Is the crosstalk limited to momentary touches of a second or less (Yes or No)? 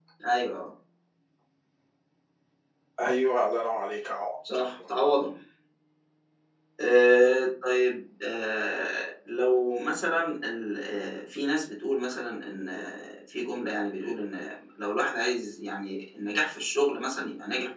Yes